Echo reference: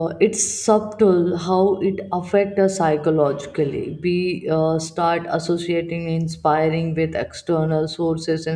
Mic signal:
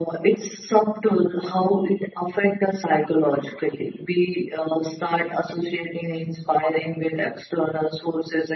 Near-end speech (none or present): none